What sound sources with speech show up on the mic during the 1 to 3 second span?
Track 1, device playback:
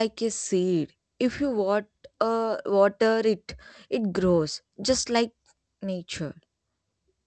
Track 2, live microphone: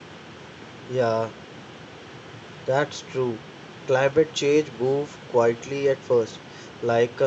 user only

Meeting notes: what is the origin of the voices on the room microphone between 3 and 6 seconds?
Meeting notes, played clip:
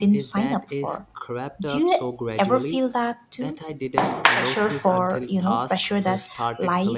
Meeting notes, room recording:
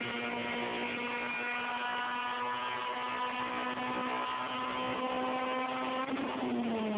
neither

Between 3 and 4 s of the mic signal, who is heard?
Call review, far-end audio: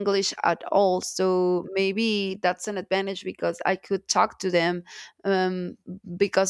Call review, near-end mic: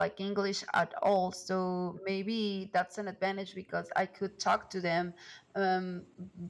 echo only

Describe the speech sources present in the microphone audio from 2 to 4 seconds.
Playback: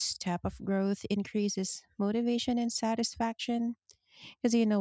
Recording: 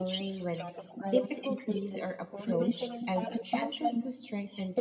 both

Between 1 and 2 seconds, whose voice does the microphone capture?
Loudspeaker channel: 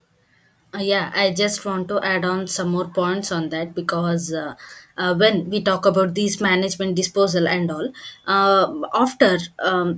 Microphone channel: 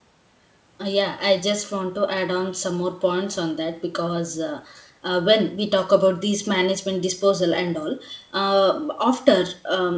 echo only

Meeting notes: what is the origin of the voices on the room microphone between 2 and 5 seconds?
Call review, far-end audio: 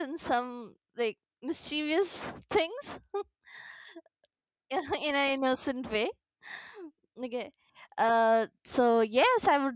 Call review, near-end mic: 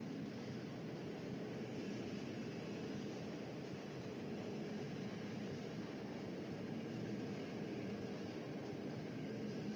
neither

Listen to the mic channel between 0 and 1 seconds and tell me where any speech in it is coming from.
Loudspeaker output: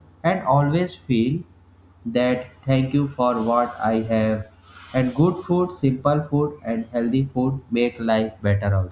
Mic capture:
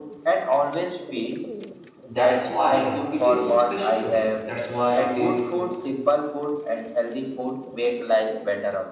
echo only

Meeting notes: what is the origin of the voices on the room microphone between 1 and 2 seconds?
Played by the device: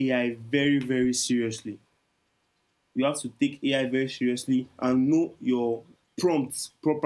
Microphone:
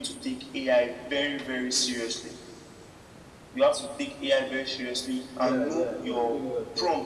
echo only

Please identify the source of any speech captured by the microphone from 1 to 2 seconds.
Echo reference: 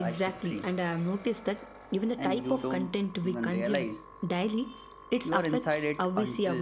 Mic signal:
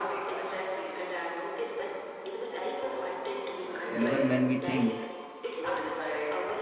echo only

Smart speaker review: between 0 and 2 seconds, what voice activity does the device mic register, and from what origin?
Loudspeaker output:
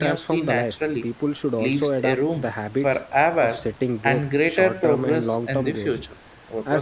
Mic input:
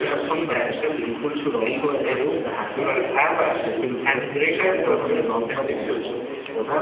both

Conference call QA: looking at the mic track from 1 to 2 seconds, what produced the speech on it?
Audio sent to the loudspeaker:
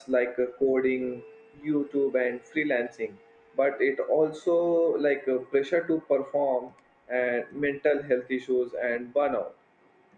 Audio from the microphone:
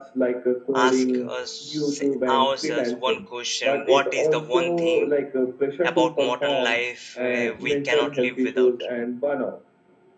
both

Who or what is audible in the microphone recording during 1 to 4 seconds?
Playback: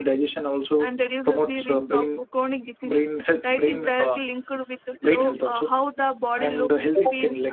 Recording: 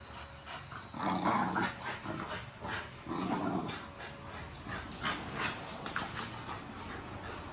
neither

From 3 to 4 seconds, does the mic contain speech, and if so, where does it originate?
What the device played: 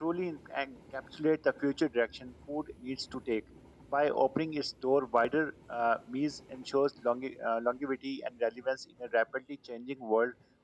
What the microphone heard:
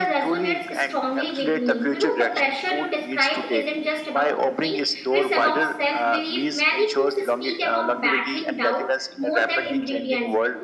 both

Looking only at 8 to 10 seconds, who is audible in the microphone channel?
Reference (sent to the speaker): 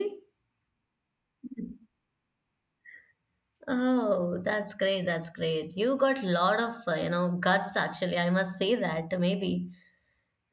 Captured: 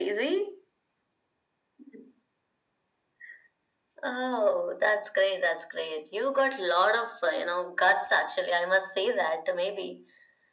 echo only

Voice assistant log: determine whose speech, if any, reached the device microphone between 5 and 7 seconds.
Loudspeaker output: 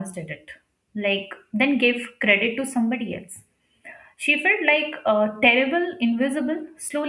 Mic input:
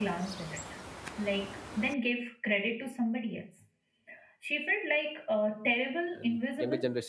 both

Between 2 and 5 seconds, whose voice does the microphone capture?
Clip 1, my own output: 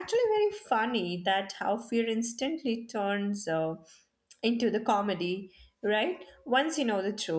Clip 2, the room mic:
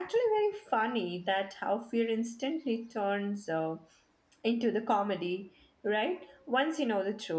echo only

